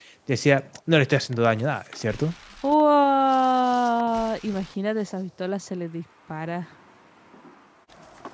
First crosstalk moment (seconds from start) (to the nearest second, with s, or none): none